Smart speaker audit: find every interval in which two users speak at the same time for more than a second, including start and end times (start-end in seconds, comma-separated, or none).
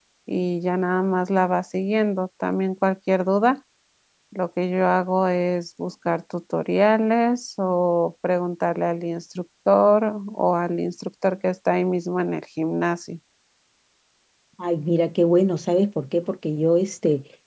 none